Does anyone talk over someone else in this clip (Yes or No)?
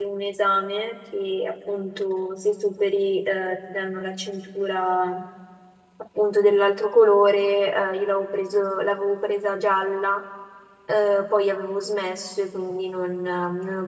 No